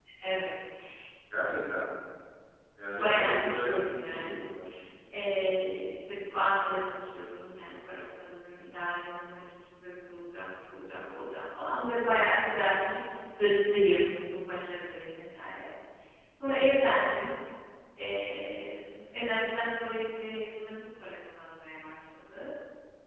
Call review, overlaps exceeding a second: present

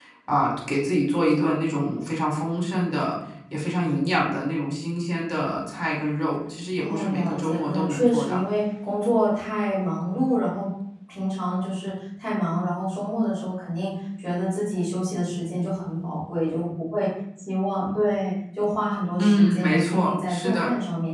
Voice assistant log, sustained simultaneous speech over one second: present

